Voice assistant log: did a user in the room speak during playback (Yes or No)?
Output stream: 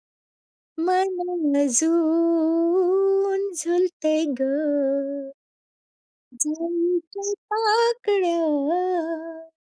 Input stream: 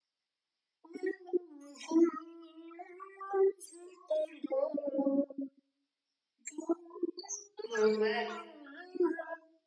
Yes